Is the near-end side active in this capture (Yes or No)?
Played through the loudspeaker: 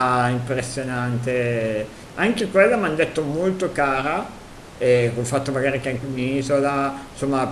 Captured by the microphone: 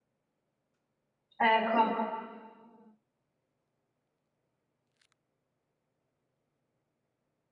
Yes